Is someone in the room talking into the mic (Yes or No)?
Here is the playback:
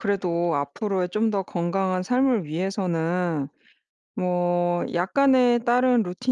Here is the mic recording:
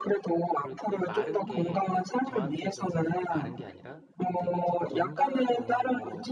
Yes